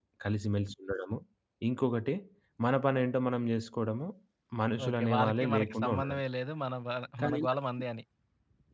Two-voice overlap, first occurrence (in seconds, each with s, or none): 4.9 s